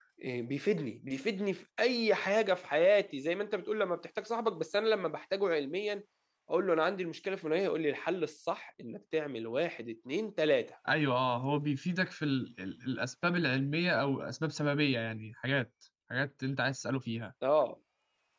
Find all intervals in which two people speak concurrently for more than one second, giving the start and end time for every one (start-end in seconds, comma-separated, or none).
none